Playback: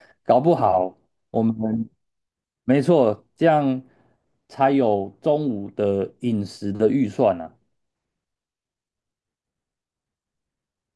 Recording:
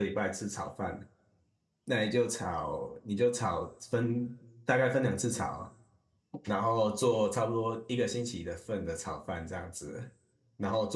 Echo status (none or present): none